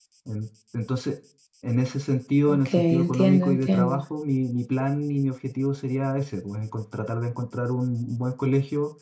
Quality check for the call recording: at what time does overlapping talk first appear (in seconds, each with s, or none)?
2.5 s